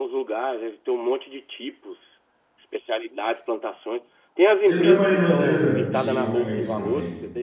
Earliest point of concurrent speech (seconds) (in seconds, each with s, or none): 4.7 s